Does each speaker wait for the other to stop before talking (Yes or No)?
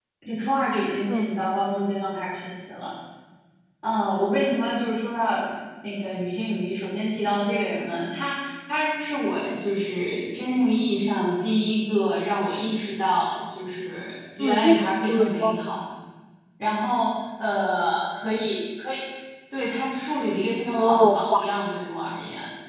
No